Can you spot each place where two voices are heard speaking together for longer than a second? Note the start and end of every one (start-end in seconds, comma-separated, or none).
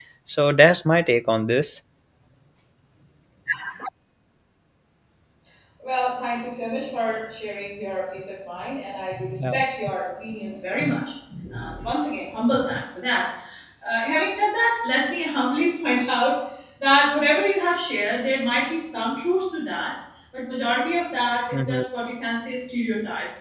none